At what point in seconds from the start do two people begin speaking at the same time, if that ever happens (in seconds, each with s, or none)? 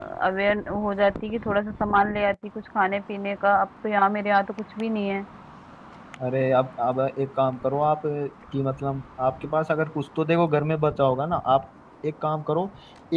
none